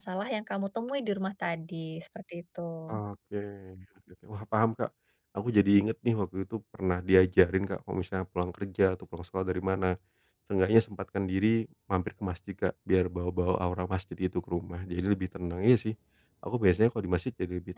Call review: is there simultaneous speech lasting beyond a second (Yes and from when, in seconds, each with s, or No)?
No